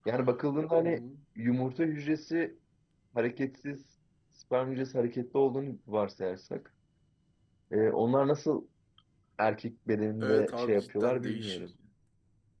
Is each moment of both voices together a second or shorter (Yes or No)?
No